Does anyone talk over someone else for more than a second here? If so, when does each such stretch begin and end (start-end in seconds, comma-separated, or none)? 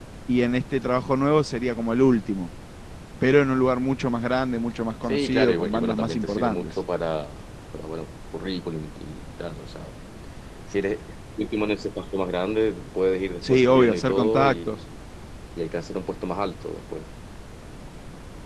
5.0-6.7, 13.4-14.8